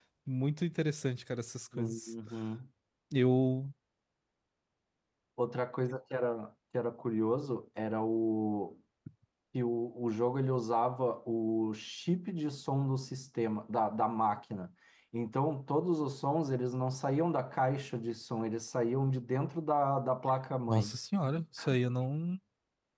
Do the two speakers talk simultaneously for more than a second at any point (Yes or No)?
No